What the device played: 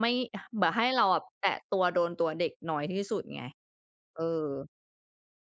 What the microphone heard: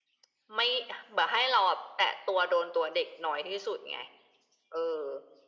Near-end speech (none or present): none